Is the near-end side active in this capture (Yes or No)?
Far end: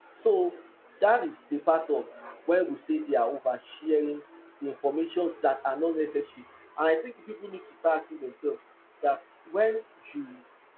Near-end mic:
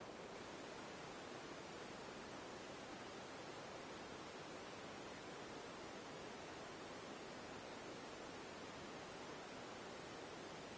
No